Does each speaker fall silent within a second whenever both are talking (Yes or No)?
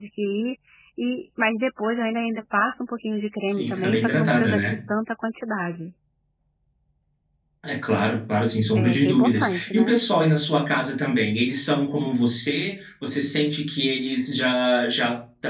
No